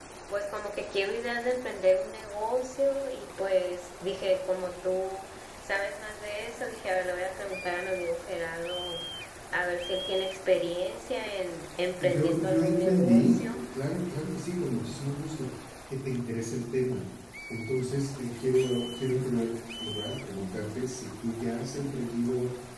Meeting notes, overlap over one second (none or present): present